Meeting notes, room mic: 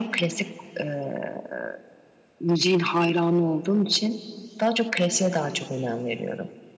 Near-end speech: none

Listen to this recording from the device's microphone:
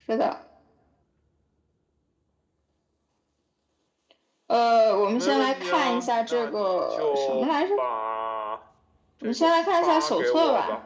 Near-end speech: present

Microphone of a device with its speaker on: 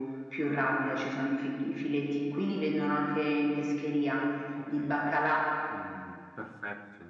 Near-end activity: present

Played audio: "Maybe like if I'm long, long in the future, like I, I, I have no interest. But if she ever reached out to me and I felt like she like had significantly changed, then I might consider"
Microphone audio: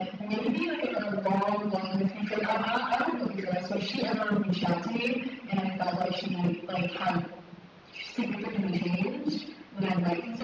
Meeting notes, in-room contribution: none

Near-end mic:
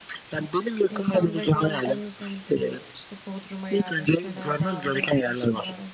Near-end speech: present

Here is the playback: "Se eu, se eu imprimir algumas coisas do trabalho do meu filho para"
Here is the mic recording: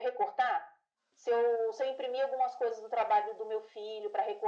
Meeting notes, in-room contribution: none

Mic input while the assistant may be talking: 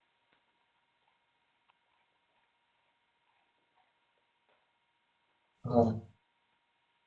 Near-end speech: present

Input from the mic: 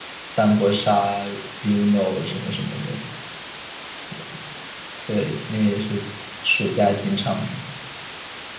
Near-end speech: present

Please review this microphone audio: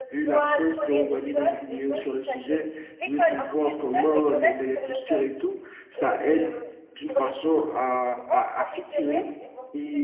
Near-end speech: present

